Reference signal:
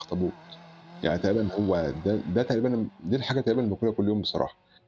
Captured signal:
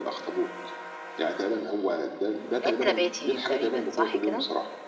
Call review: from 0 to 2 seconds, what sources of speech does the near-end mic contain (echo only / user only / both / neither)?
echo only